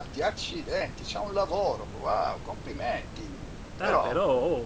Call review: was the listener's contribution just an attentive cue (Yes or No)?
No